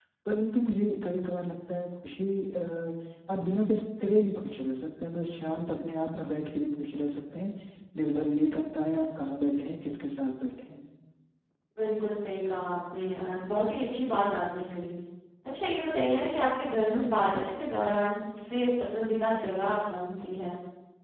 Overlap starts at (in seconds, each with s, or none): none